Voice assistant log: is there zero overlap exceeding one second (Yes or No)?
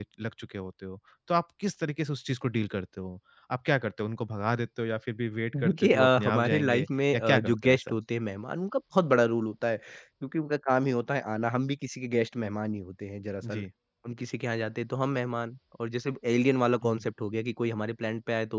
No